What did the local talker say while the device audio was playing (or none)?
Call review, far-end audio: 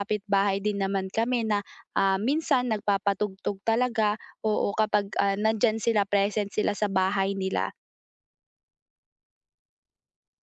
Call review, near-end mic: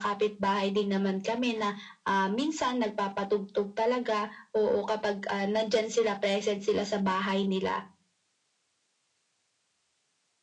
none